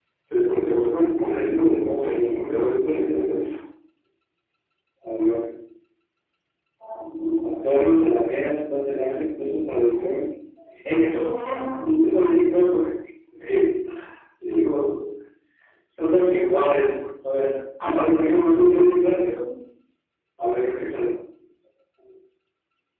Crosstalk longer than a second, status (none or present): present